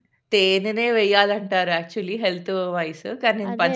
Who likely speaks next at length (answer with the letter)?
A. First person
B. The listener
A